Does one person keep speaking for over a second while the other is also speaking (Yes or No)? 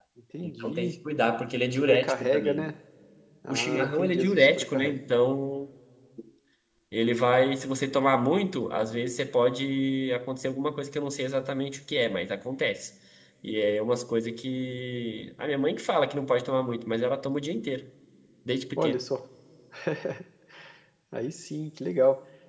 Yes